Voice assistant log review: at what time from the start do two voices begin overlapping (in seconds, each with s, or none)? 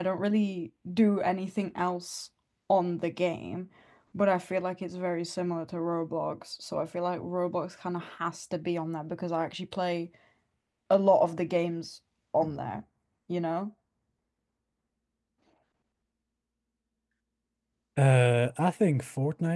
none